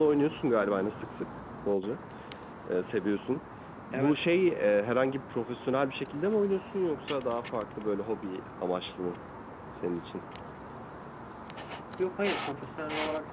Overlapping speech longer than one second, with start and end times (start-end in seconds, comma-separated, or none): none